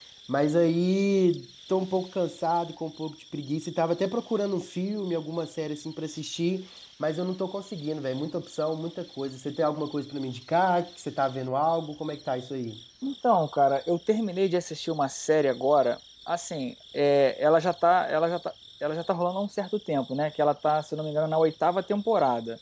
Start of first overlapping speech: none

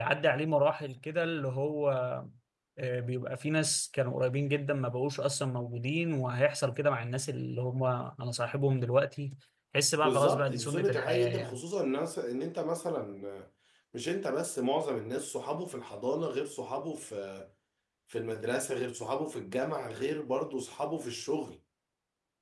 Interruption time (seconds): 10.0 s

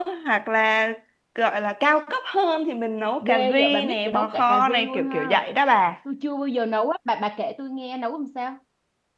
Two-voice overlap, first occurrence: 3.2 s

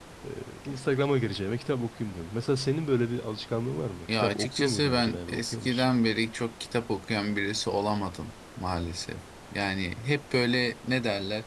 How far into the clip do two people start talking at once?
4.1 s

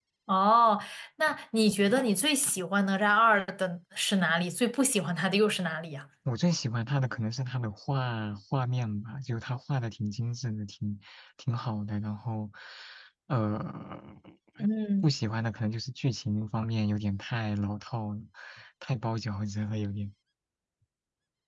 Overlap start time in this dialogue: none

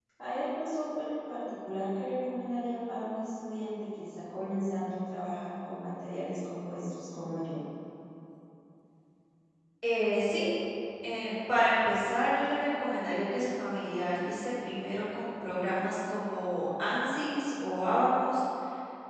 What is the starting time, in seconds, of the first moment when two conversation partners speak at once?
none

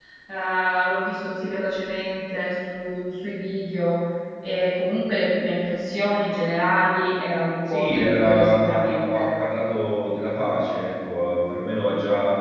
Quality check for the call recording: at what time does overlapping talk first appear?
7.7 s

